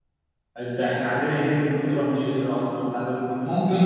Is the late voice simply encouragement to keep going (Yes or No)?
No